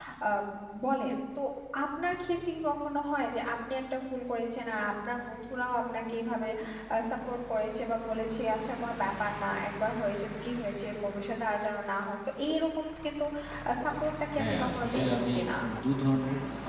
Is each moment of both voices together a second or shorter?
No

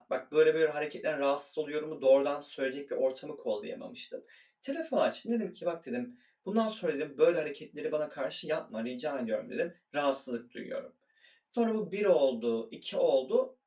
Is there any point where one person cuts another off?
No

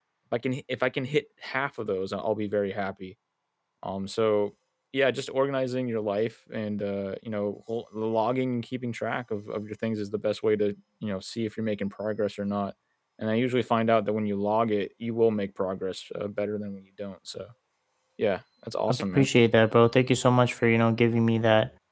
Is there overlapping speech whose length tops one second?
No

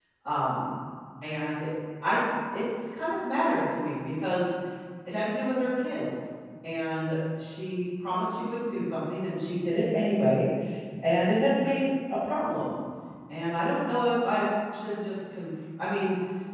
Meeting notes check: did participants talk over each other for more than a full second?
No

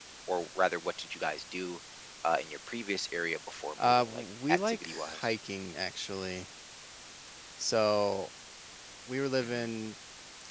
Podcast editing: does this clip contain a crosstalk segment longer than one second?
Yes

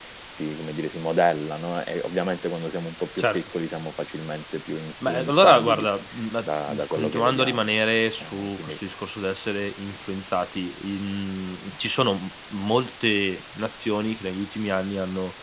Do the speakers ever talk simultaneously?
Yes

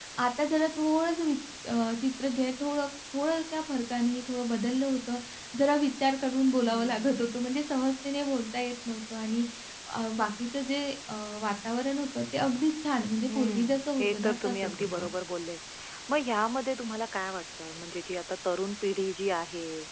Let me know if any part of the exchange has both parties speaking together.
Yes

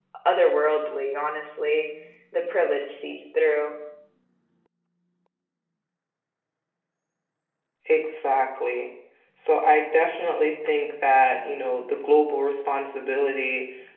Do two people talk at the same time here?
No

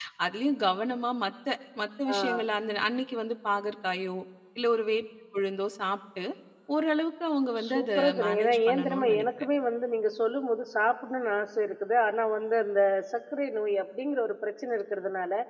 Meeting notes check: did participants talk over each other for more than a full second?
Yes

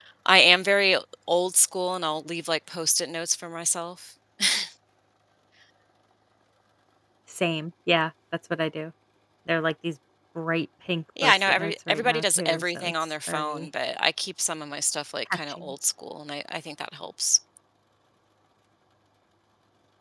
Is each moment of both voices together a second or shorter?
No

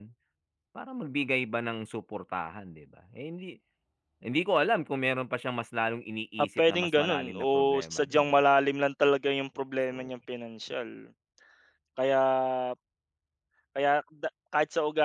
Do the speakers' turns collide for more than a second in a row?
Yes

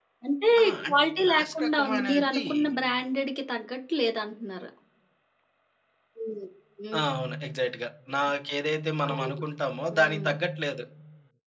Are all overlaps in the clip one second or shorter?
No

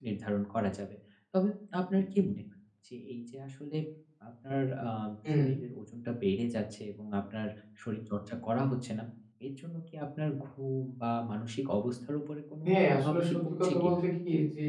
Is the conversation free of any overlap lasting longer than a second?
No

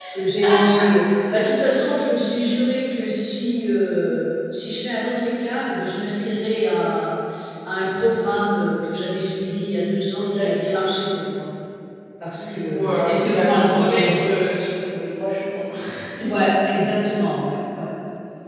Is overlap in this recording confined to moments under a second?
No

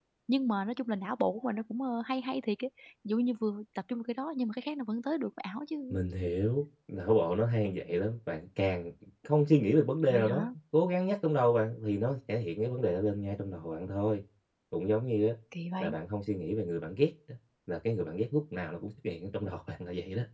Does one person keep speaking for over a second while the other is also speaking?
No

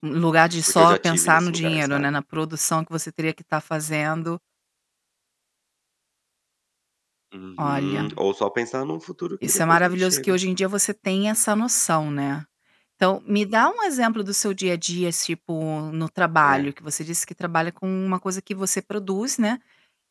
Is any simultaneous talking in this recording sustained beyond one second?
Yes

